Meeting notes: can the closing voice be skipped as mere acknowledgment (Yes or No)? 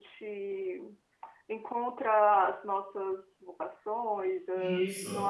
No